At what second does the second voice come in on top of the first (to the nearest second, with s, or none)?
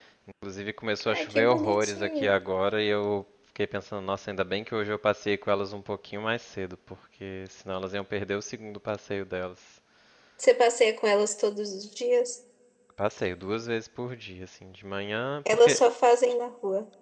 1 s